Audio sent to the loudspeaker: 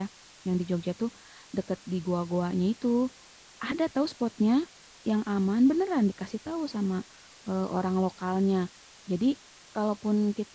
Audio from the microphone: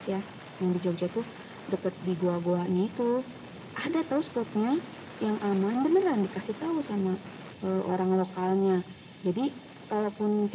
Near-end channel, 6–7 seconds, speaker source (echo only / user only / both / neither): echo only